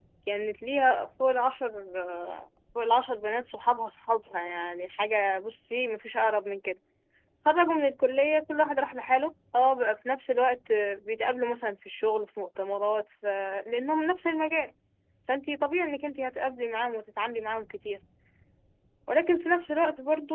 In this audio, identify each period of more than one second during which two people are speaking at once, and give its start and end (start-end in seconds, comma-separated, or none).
none